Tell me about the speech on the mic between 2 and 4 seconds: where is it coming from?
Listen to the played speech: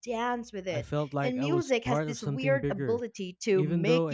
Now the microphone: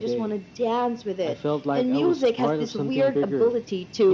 echo only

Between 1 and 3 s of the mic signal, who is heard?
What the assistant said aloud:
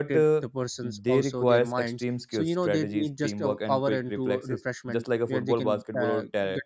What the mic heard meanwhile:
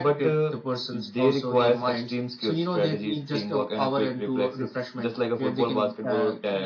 echo only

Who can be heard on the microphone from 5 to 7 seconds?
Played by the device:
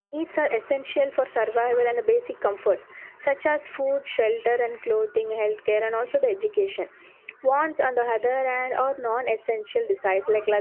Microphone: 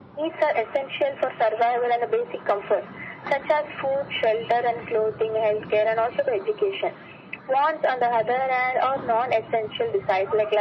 echo only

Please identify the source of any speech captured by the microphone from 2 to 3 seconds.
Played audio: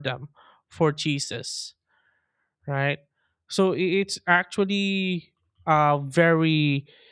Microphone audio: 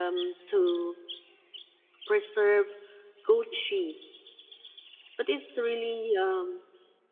user only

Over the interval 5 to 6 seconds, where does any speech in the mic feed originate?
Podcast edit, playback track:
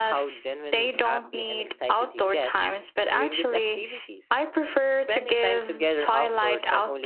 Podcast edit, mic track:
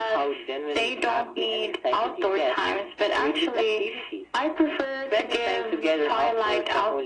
echo only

